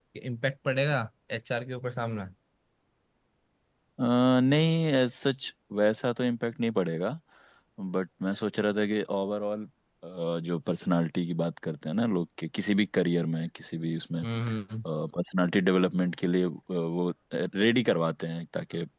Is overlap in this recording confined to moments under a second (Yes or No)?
Yes